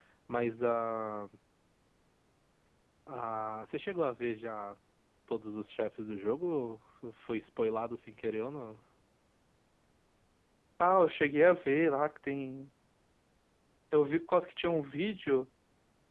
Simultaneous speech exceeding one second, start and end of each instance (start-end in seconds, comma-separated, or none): none